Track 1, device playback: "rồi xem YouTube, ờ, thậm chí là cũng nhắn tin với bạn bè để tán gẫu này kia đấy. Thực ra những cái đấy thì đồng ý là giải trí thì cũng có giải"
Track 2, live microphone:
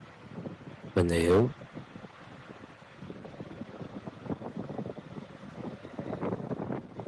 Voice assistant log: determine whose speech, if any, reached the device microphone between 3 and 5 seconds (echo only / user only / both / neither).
neither